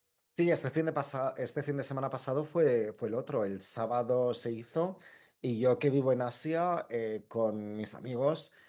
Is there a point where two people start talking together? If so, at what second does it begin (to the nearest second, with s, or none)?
none